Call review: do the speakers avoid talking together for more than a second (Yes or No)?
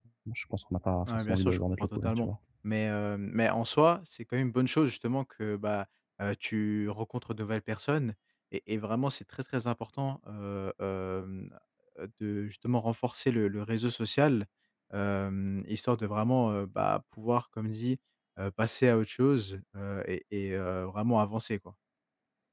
No